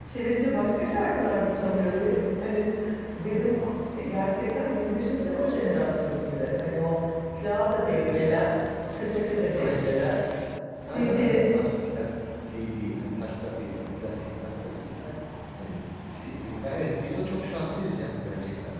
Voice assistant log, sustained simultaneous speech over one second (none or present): none